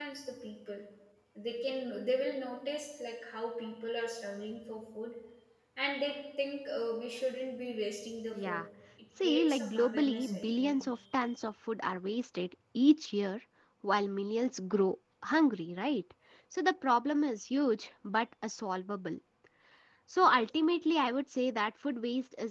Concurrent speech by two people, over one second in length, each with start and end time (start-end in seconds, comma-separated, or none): 9.2-10.8